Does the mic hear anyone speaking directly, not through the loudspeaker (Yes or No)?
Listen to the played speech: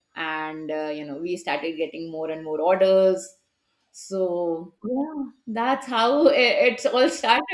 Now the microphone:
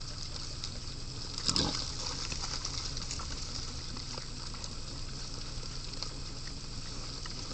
No